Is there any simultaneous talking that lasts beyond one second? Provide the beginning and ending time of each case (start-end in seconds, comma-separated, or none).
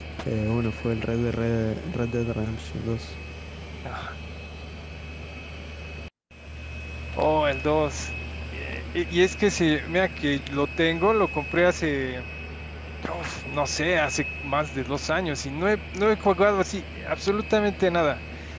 none